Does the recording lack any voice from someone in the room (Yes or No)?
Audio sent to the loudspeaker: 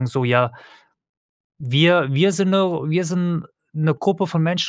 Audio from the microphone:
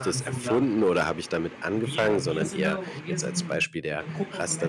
No